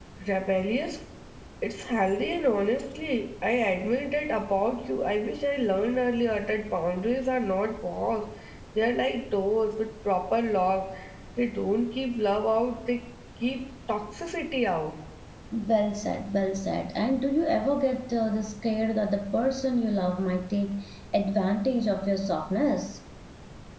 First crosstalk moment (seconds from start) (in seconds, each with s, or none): none